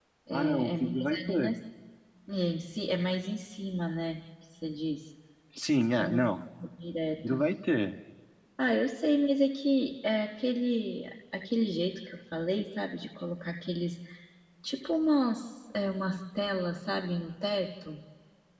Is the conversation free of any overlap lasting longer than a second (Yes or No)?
No